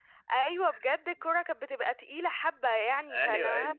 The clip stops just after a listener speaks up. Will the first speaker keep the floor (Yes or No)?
Yes